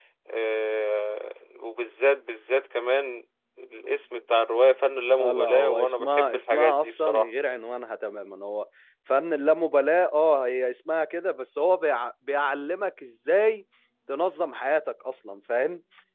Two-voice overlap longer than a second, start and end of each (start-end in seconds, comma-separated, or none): 5.2-7.3